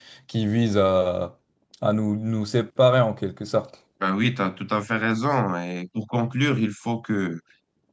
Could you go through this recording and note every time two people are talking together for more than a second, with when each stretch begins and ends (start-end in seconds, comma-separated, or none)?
none